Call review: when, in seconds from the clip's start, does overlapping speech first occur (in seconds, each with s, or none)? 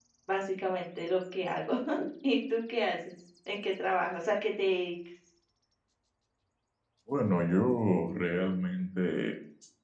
none